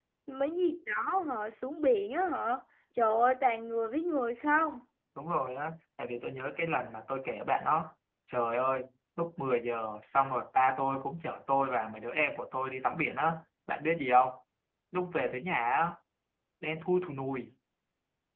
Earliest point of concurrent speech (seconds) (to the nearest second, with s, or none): none